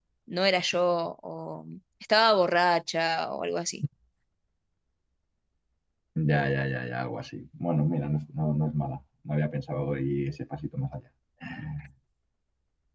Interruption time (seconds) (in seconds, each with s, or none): none